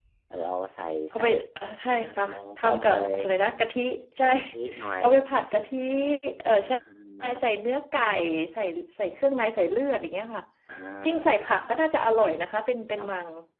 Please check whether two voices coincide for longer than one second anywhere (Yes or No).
Yes